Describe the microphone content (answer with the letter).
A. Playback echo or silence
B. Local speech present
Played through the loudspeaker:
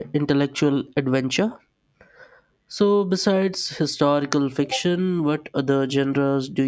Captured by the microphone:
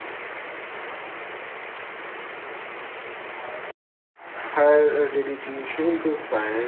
B